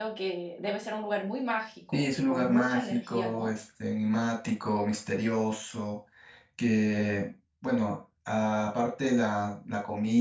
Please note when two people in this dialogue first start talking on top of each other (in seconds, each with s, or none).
1.9 s